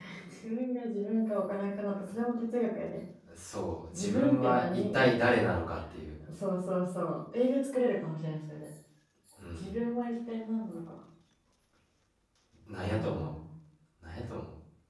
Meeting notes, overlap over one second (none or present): present